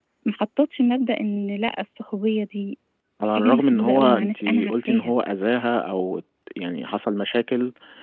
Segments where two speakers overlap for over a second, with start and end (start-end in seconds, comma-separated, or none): 3.3-5.1